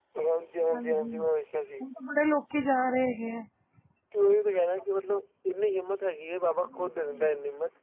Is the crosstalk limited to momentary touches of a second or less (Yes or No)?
Yes